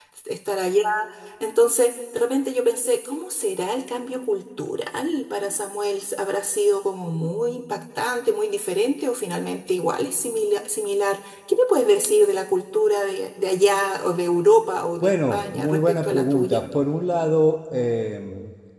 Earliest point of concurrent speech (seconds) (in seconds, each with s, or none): 15.0 s